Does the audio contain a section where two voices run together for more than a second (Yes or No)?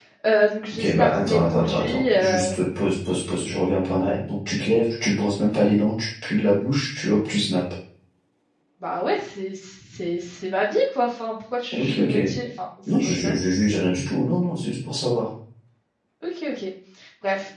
Yes